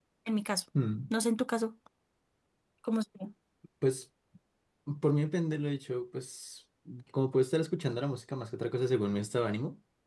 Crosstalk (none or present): none